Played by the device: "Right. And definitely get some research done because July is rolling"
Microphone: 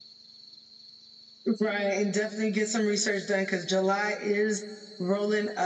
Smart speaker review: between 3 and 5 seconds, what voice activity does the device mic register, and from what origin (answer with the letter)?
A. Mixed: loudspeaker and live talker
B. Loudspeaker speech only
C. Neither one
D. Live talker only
B